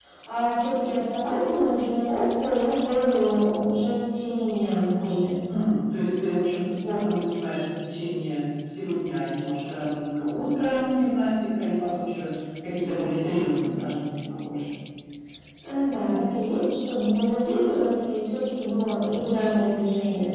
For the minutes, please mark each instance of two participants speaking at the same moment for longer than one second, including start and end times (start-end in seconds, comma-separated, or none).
none